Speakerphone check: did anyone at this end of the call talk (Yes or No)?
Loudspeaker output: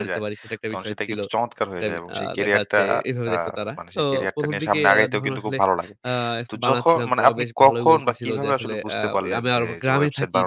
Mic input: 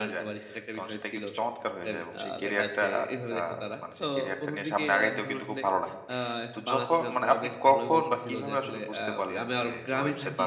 No